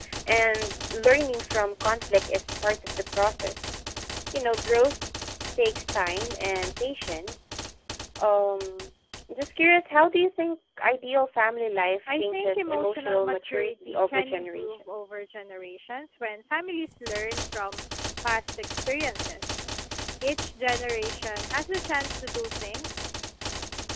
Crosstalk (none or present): present